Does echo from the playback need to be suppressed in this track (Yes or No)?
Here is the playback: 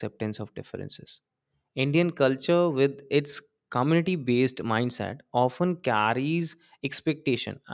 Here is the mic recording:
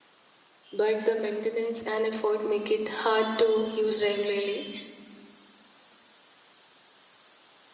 No